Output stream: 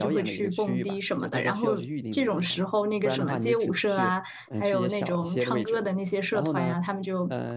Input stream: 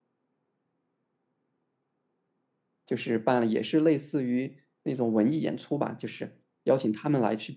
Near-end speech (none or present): present